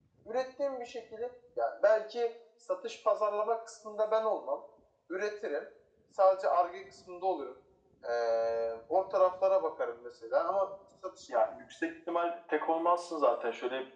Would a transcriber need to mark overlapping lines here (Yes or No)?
No